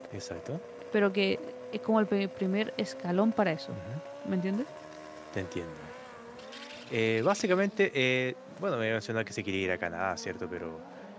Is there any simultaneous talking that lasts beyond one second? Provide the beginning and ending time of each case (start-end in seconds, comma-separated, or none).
none